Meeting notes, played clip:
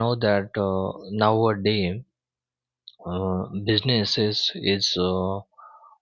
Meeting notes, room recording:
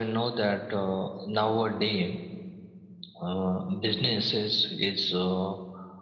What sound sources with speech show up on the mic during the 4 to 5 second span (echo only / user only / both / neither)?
echo only